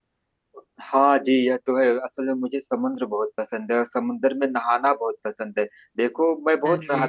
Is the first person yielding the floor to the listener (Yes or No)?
No